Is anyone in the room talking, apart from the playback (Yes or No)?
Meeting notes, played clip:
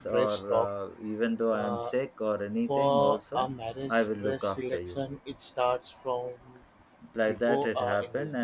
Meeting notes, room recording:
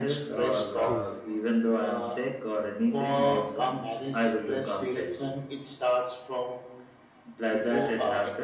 Yes